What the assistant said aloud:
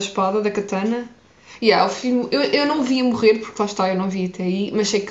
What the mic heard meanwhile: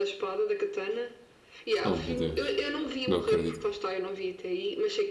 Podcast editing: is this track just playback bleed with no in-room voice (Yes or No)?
No